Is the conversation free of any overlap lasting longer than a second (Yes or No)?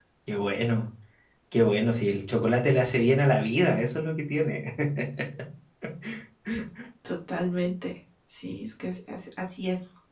Yes